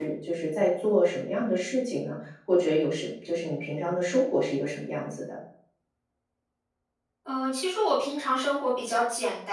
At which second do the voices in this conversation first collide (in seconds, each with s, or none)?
none